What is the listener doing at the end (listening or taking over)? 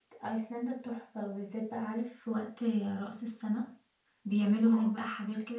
listening